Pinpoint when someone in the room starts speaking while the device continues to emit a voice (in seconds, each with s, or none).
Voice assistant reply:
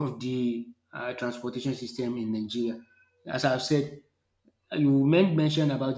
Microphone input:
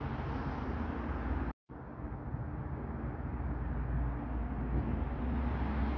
none